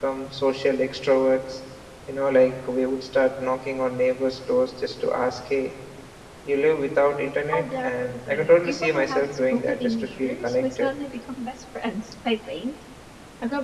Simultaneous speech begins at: 7.5 s

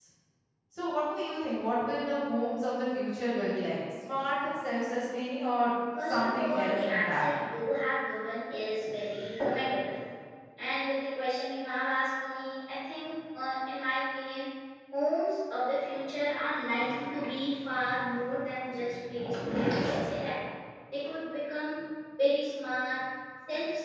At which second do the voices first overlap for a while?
6.0 s

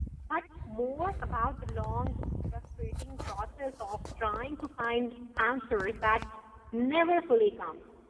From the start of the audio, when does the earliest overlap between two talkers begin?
none

